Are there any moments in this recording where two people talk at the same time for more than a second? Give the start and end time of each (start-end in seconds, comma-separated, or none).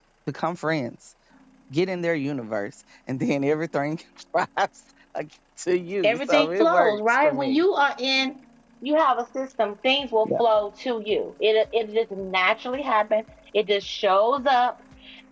6.0-7.6